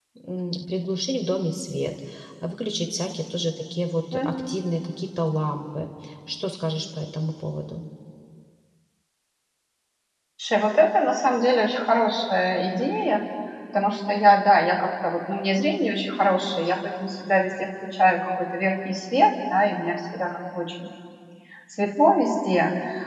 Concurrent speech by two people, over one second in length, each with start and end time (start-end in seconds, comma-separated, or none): none